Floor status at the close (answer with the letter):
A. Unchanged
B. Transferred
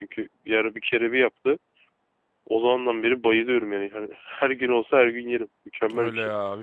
B